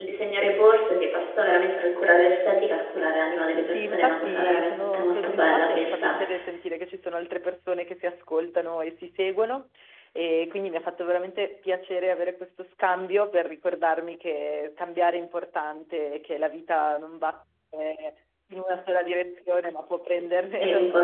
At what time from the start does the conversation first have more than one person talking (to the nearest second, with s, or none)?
4 s